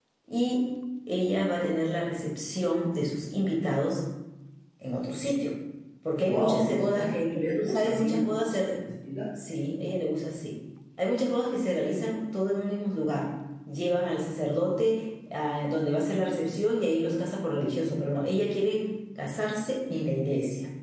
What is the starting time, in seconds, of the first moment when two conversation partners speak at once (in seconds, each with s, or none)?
6.2 s